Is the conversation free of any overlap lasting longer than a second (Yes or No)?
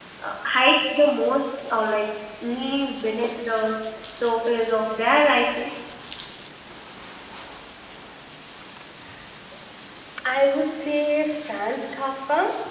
Yes